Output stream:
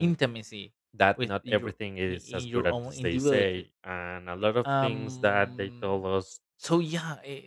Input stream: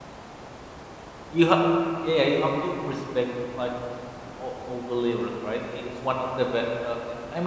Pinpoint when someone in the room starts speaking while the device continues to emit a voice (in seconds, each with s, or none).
1.3 s